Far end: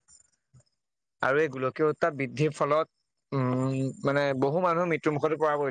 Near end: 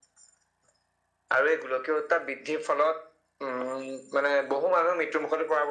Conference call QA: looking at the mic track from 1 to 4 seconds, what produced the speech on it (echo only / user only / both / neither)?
echo only